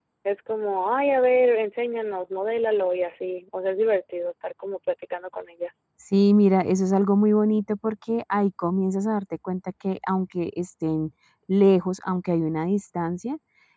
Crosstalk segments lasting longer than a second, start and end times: none

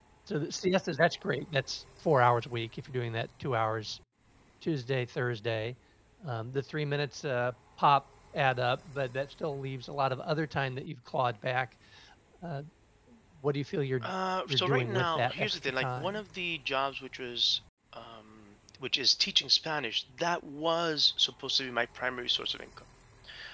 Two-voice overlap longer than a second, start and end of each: 14.5-16.2

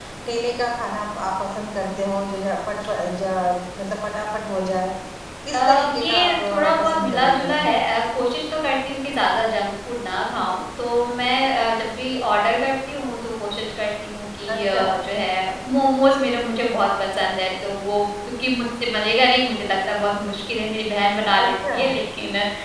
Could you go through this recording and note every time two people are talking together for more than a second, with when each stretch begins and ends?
5.5-7.5

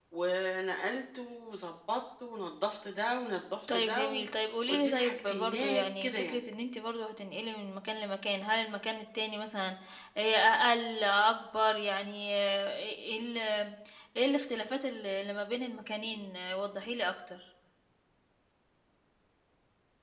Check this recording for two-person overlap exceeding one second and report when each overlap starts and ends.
4.7-6.4

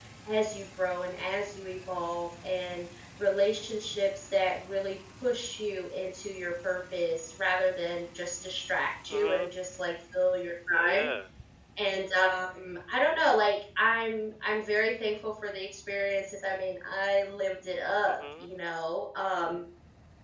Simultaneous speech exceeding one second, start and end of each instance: none

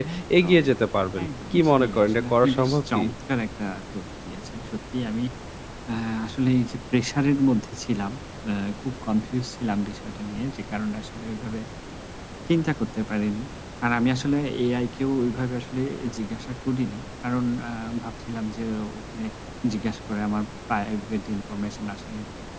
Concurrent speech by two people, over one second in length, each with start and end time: 1.2-3.1

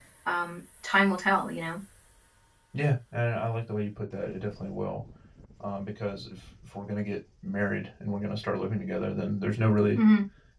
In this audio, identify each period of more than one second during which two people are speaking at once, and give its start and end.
none

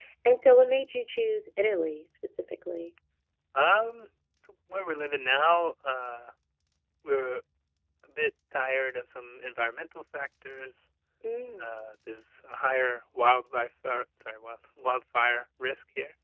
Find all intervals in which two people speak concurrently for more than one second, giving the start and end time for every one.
none

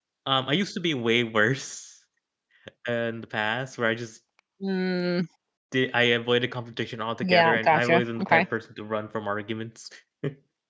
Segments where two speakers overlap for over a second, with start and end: 7.2-8.5

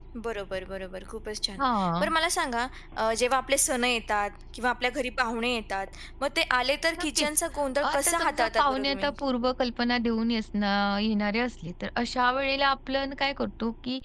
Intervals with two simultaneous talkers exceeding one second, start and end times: 7.9-9.1

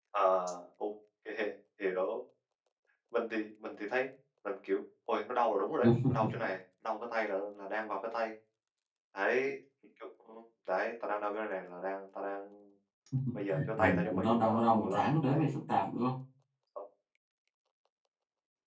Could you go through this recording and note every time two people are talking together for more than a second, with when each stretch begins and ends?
13.8-15.5

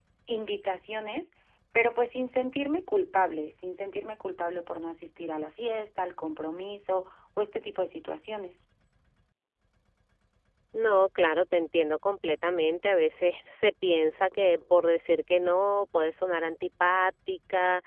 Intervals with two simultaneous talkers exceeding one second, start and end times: none

